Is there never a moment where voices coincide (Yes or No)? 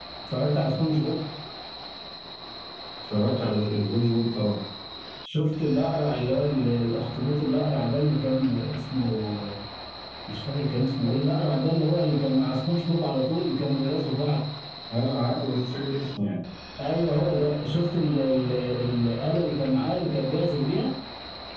Yes